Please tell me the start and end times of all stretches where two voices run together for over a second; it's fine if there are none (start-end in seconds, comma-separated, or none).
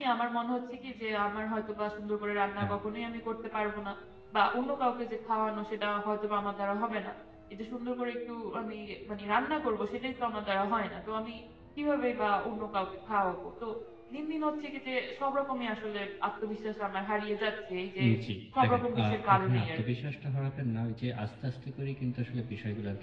18.6-20.0